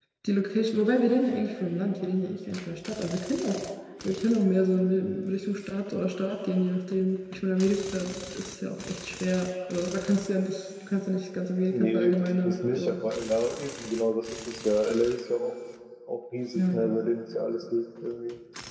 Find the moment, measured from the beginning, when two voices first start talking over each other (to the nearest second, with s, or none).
12 s